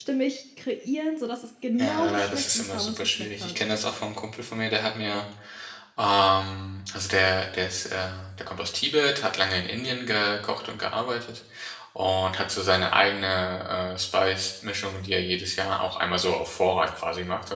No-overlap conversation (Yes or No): No